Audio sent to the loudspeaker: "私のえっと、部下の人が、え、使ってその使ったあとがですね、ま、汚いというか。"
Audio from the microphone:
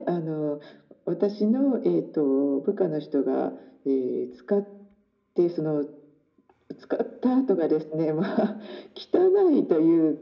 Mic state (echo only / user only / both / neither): echo only